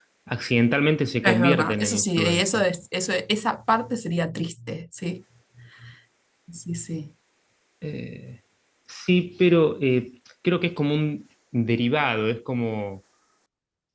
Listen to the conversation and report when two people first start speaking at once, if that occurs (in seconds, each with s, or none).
1.2 s